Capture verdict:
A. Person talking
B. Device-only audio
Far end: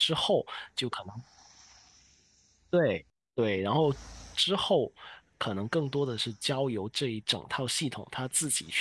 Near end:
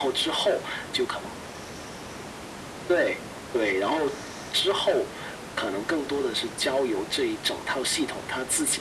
B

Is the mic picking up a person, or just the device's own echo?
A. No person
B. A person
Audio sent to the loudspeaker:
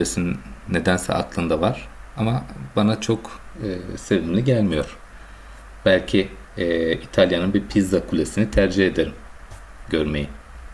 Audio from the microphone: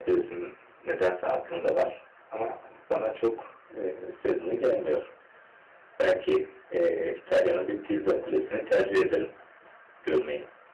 A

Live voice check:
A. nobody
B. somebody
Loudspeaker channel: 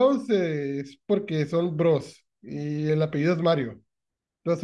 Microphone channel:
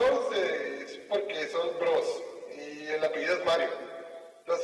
A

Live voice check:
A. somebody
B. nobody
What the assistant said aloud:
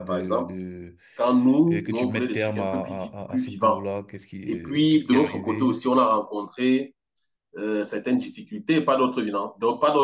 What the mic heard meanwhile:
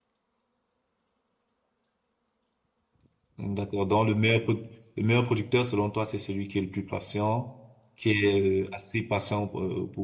A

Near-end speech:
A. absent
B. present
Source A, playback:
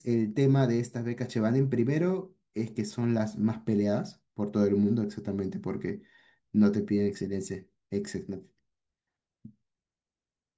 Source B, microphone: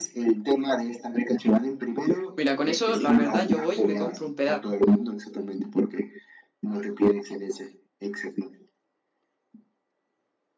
B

